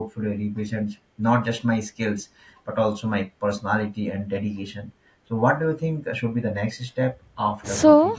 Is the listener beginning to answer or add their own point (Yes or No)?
Yes